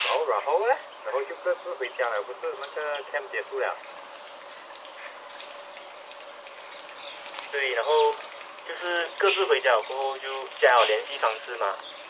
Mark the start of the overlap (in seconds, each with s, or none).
none